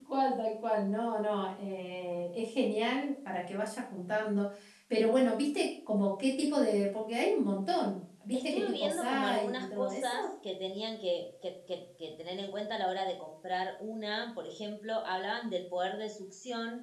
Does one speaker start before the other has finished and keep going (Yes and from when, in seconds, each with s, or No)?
Yes, from 8.3 s